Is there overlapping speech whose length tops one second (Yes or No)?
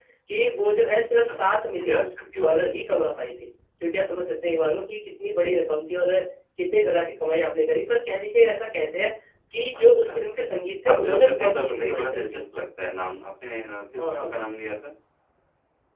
Yes